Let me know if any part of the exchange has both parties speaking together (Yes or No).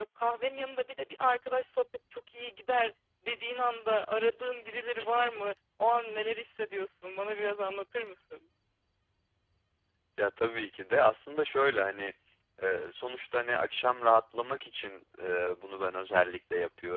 No